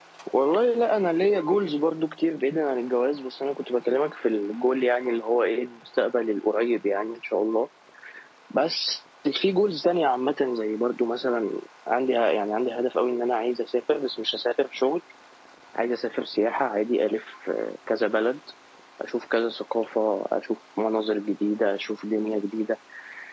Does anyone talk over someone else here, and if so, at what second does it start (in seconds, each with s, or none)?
none